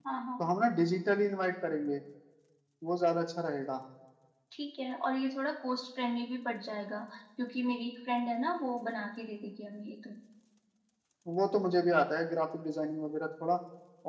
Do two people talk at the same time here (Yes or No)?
No